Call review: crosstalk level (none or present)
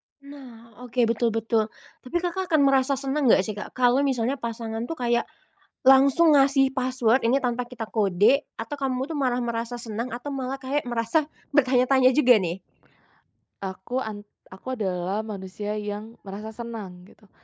none